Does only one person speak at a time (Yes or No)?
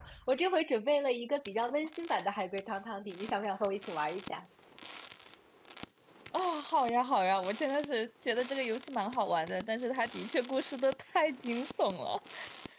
Yes